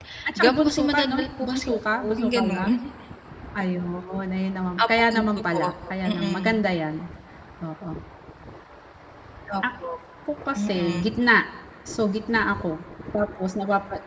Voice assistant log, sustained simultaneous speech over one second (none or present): present